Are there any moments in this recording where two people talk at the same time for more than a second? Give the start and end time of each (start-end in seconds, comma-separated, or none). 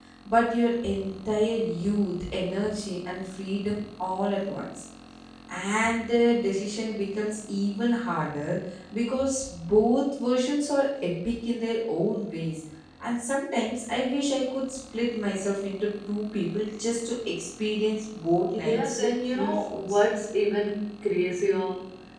18.6-20.0